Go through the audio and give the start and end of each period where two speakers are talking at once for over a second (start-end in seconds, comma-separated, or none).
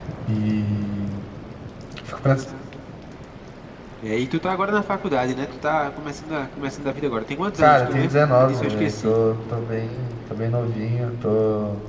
7.6-9.1